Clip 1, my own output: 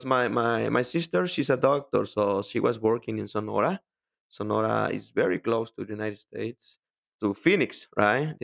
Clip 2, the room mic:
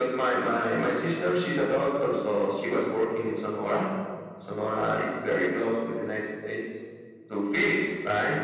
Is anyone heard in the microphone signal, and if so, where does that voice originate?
echo only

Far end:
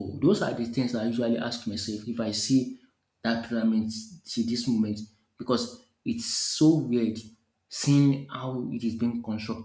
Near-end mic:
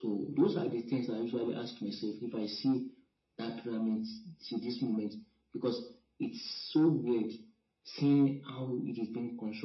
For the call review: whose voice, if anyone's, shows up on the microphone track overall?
echo only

